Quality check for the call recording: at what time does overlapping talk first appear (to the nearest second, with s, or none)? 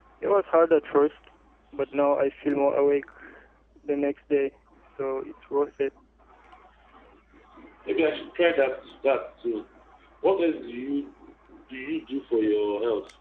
none